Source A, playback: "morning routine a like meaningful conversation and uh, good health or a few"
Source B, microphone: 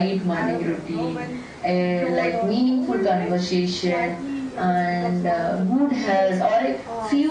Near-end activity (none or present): present